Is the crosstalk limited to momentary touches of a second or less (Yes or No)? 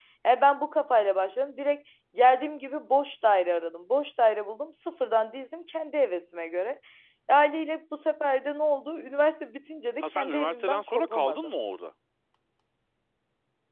No